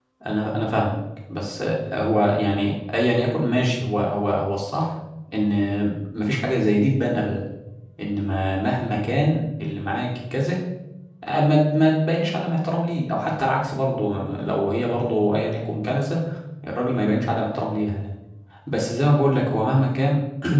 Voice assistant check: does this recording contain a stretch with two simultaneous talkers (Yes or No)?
No